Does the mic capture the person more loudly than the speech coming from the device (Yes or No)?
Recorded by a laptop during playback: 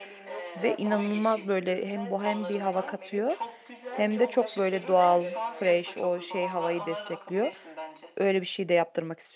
Yes